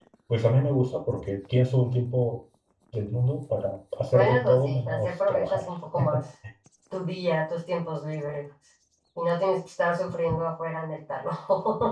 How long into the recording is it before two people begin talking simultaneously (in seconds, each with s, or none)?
4.1 s